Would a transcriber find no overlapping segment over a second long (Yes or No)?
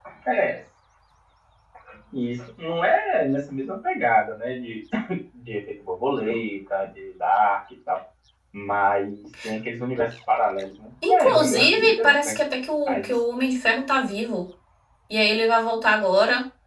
No